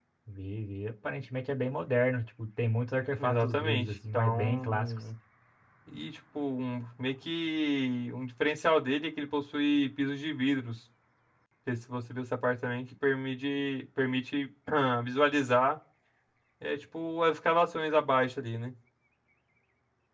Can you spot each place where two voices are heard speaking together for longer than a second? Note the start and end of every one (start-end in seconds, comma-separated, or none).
3.2-5.0